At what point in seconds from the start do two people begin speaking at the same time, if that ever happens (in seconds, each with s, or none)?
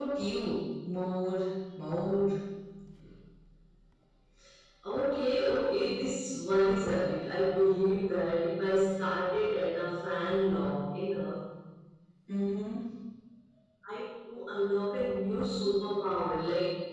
none